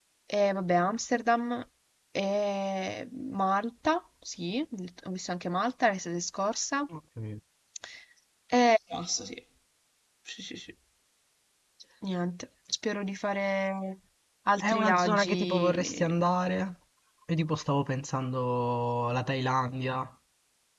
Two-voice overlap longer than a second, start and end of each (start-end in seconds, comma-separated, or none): 14.6-16.1